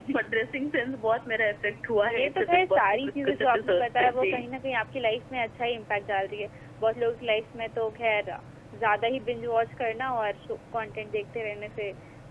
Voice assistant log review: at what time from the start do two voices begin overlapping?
2.0 s

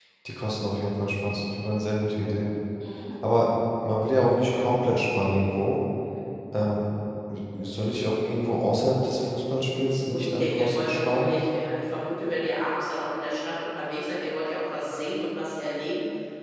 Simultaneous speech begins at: 10.1 s

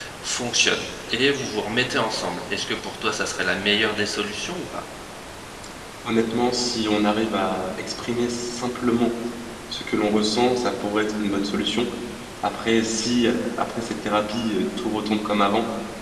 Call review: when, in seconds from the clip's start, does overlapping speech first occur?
none

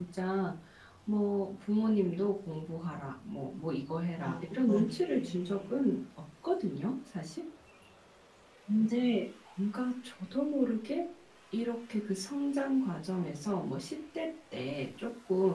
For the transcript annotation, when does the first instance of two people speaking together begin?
4.2 s

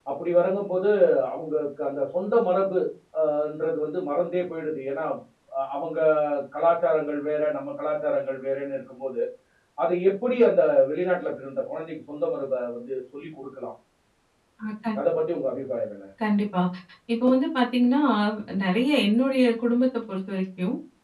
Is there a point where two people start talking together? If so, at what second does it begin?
none

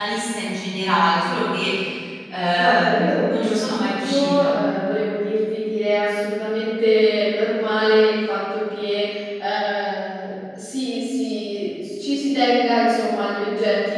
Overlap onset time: 2.6 s

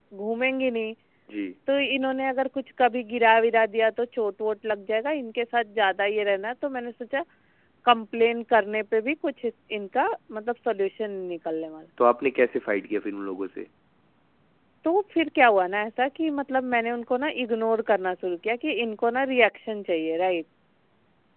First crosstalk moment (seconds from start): none

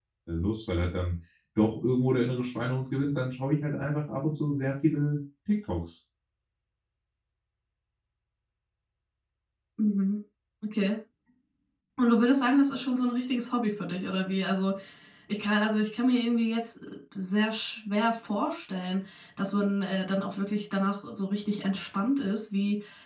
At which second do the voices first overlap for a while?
none

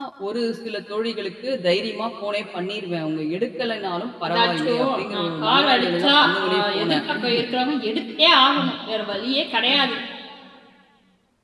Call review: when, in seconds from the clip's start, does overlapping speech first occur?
4.2 s

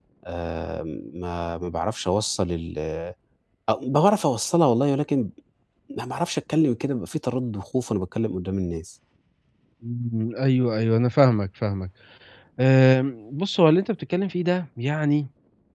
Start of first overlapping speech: none

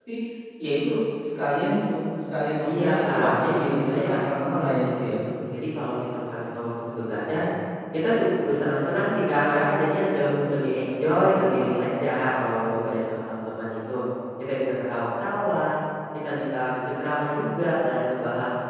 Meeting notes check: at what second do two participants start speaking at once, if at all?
2.6 s

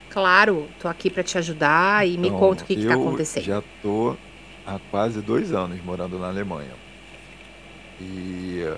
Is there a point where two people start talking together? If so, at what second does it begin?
2.0 s

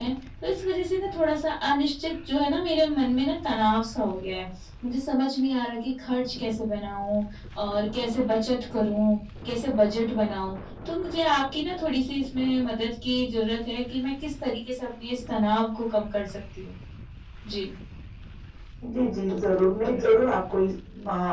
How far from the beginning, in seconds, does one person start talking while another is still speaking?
none

